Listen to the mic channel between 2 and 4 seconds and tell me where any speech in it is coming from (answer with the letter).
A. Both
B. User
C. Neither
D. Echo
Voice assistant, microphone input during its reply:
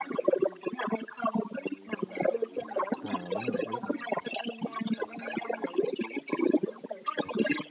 A